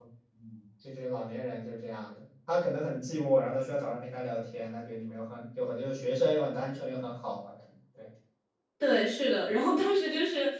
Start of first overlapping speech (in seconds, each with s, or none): none